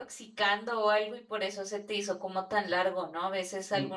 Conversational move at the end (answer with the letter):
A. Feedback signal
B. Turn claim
A